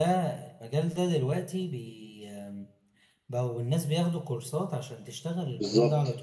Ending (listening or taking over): listening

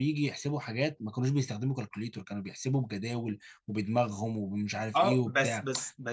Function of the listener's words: taking over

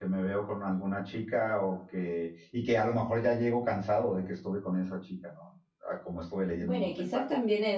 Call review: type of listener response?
taking over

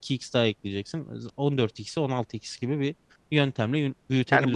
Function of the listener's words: taking over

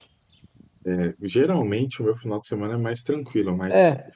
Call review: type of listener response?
listening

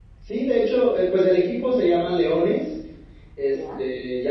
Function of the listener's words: listening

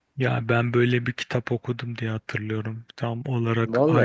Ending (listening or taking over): listening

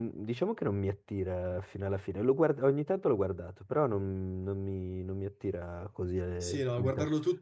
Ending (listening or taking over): taking over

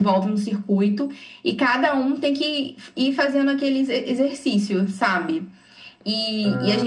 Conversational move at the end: taking over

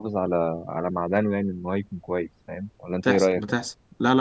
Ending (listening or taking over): taking over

